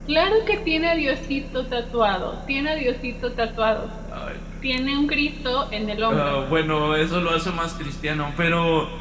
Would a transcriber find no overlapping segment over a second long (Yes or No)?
Yes